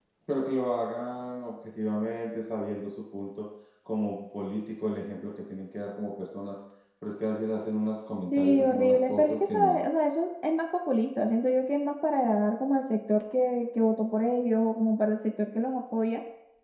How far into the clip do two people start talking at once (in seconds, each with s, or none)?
8.3 s